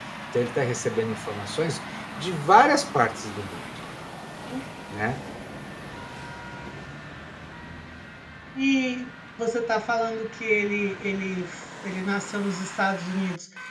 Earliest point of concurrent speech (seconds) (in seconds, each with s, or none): none